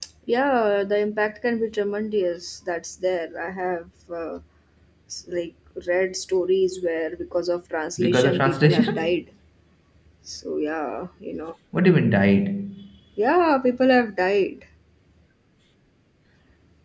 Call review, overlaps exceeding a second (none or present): present